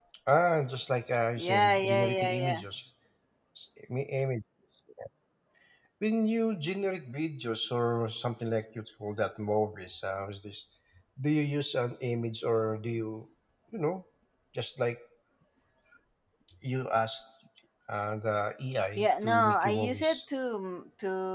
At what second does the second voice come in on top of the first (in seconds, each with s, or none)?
1.4 s